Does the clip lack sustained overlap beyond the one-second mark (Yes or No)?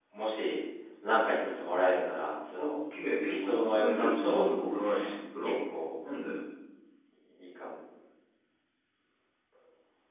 No